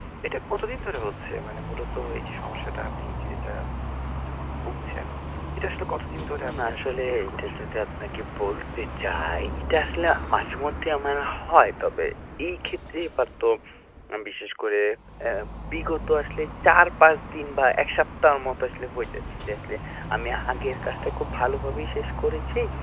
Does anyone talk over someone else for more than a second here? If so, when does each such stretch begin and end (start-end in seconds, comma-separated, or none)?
6.1-7.6